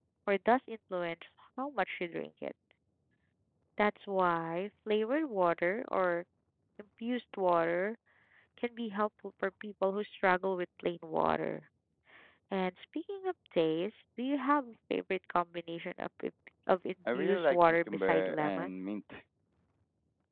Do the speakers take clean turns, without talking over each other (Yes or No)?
No